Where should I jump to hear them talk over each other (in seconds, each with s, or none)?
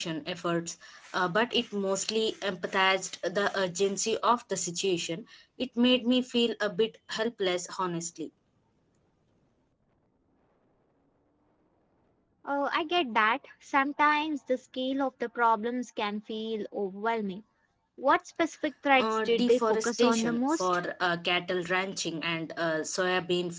19.0 s